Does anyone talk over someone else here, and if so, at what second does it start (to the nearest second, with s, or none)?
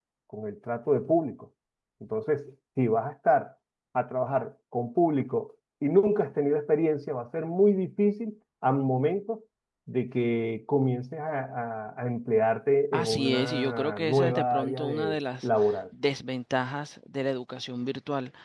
13 s